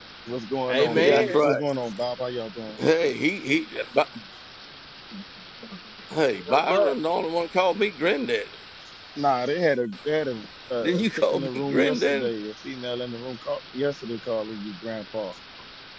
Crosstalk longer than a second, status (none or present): present